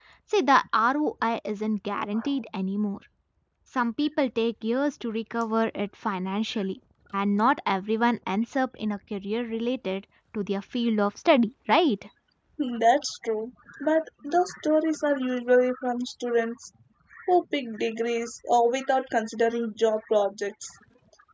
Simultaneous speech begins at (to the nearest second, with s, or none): none